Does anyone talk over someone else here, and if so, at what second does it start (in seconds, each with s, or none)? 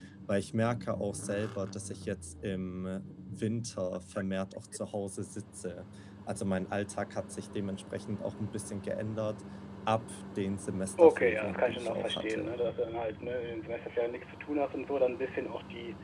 11.0 s